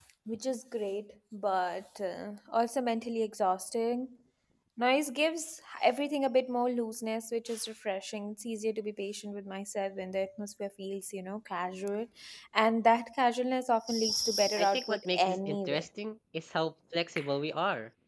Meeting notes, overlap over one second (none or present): present